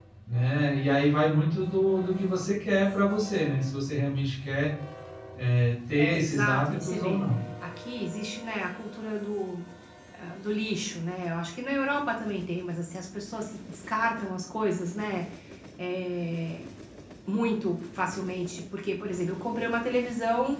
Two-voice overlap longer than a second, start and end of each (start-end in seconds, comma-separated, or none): 6.0-7.2